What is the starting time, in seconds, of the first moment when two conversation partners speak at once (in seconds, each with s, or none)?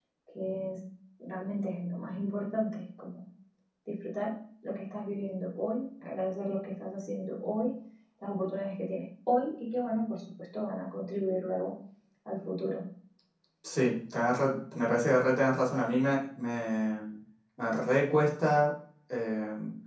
none